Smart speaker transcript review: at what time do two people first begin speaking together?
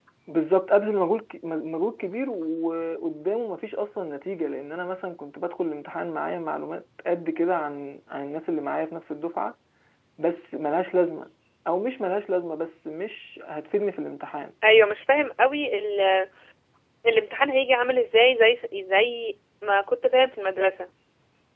none

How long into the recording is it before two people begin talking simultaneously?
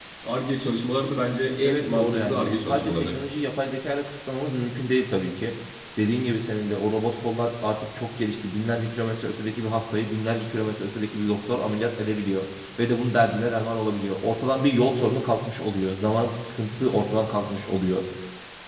2 s

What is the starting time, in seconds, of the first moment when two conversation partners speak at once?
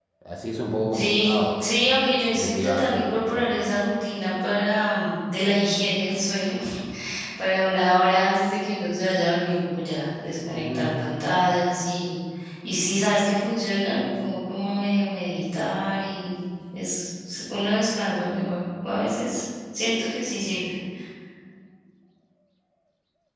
1 s

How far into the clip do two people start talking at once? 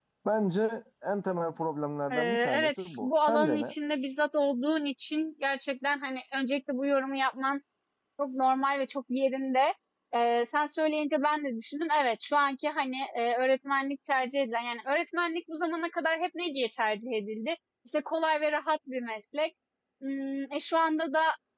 2 s

